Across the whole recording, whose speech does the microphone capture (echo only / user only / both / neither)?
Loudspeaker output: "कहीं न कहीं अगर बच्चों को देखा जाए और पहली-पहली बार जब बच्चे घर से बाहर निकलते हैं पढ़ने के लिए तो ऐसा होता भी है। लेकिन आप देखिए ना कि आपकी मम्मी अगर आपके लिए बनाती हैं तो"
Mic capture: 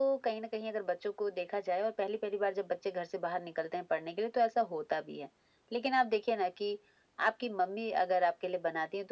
echo only